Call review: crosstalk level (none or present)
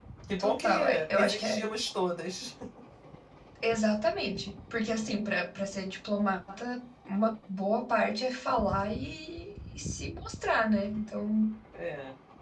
present